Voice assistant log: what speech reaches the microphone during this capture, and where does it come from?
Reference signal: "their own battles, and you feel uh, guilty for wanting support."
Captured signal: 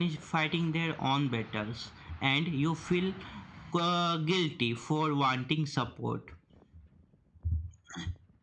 echo only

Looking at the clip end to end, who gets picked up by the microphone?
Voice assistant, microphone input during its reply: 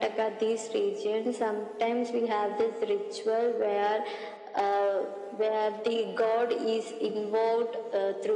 echo only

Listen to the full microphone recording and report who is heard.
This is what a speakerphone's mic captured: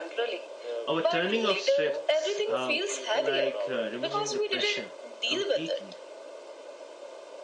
both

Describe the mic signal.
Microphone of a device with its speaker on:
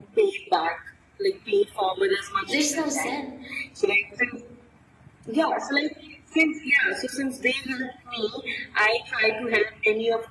both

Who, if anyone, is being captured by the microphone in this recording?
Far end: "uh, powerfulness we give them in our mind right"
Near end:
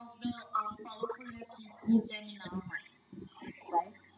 echo only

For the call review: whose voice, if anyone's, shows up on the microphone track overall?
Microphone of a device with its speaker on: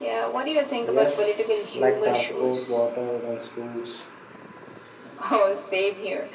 both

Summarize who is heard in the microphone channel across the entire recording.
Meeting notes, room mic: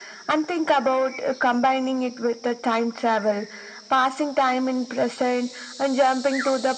echo only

